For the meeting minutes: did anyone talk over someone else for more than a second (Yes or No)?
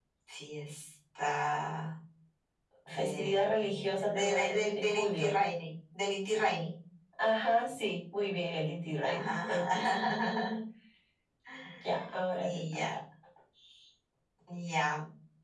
Yes